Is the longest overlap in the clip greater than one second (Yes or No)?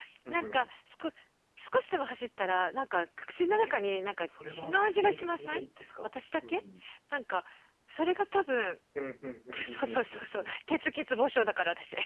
Yes